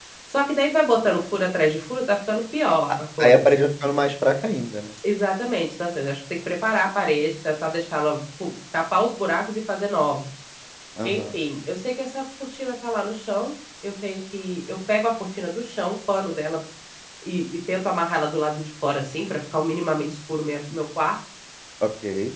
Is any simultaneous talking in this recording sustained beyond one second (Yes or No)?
No